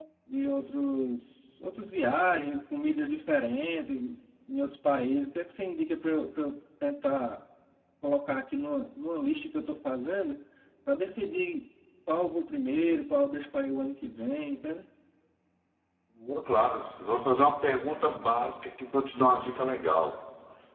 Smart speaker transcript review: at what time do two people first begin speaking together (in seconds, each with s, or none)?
none